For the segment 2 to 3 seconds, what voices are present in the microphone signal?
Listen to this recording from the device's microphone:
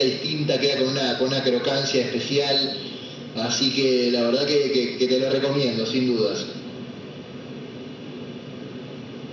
echo only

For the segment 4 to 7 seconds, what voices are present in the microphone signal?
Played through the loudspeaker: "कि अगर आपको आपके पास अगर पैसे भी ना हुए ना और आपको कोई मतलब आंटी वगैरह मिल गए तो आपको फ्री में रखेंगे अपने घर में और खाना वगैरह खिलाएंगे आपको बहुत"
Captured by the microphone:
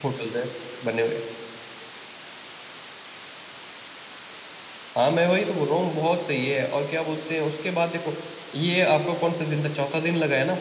user only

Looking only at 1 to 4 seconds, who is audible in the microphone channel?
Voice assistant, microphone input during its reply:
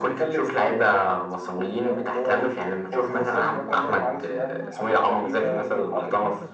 both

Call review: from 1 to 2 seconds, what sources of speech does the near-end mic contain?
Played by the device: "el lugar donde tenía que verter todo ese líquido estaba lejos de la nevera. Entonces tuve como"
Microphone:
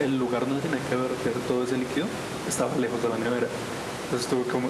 echo only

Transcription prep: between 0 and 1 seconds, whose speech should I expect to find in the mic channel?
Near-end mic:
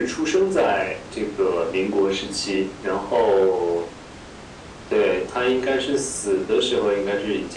echo only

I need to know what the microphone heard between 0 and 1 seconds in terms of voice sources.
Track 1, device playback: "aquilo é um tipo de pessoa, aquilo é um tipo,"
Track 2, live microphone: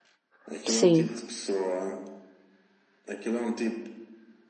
both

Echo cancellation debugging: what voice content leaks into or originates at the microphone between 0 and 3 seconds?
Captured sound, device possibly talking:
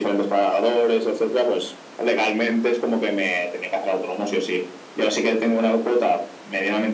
echo only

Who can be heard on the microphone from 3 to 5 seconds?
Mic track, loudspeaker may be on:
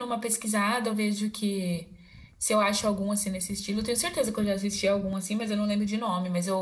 echo only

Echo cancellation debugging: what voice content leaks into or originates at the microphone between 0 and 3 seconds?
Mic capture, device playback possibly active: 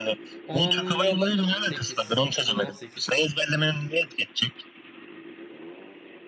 both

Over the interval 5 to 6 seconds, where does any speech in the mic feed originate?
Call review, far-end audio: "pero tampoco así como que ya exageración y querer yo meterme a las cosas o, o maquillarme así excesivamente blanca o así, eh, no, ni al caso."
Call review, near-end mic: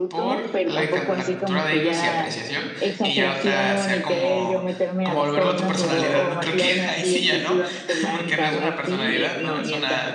both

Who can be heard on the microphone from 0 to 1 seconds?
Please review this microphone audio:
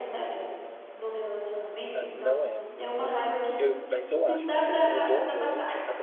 echo only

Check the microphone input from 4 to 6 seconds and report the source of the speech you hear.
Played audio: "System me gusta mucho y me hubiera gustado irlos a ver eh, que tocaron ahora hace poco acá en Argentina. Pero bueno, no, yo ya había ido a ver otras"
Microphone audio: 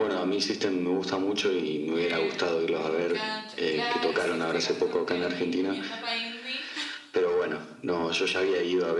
both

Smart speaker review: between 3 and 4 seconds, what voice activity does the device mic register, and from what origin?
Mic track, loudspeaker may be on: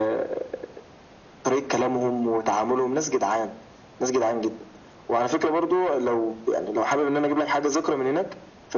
echo only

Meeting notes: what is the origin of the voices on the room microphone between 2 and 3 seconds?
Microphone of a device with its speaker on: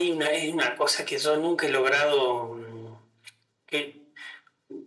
echo only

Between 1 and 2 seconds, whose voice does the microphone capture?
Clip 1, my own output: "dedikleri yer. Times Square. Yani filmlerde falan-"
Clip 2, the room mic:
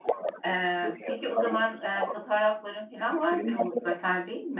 both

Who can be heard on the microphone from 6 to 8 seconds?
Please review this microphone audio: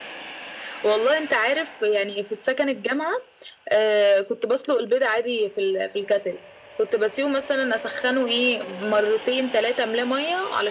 echo only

